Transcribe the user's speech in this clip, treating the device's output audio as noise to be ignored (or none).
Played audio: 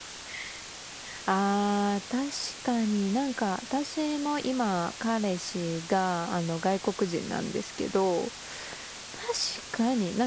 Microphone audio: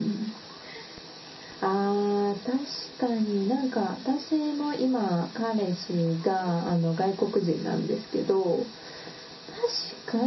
none